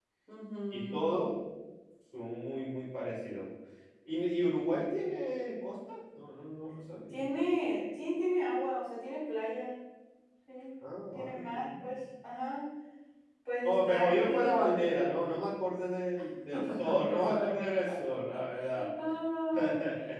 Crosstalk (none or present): present